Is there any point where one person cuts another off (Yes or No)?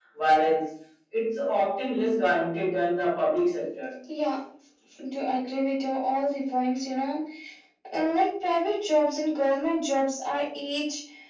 No